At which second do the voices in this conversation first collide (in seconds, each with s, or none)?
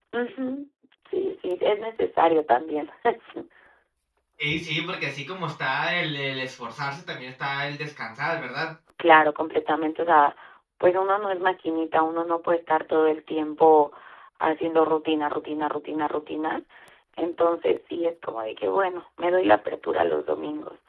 none